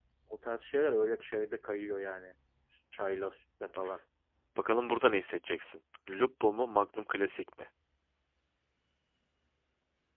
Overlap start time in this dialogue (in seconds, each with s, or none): none